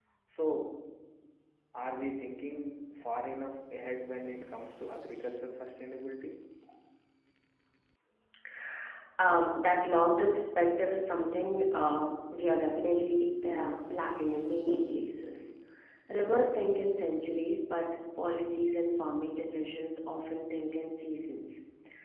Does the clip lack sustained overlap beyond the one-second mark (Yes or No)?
Yes